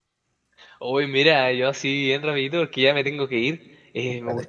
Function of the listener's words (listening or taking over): listening